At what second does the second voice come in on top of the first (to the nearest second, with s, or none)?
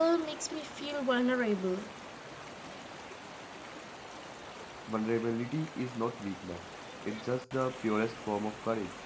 none